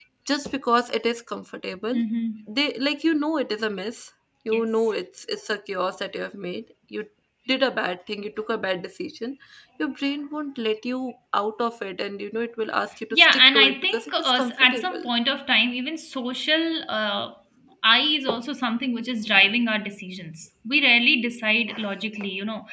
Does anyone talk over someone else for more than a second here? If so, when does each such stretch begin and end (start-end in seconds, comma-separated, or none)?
13.1-15.1